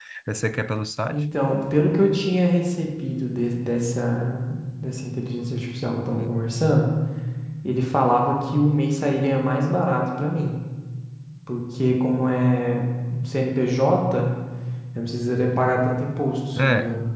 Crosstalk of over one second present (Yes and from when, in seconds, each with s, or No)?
No